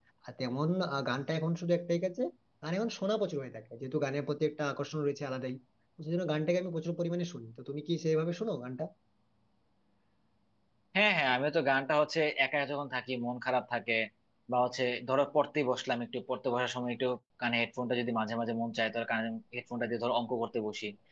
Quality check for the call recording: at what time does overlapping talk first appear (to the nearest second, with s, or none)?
none